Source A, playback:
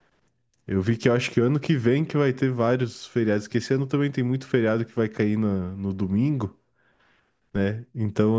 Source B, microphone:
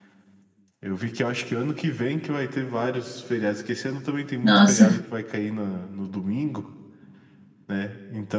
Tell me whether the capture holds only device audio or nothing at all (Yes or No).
No